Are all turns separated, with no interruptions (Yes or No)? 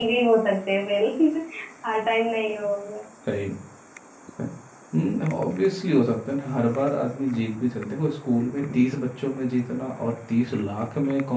Yes